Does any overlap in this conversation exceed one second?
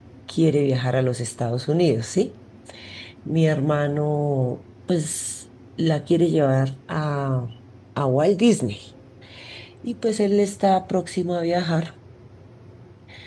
No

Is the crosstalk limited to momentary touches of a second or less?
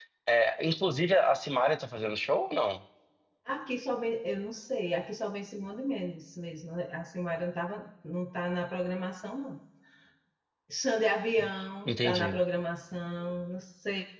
Yes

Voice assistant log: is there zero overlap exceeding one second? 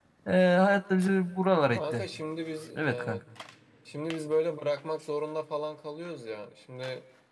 Yes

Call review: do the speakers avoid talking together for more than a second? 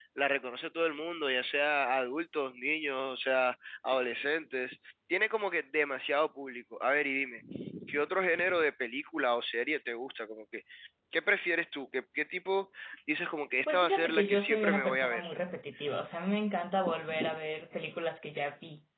No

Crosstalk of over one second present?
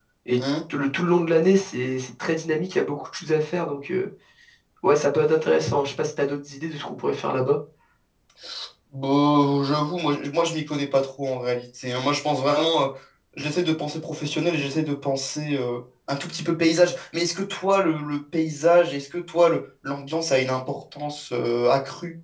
No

